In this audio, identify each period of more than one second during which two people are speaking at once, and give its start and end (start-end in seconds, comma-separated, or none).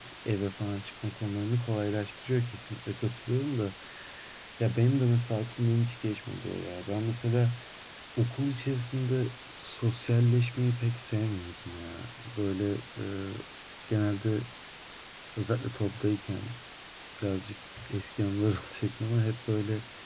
none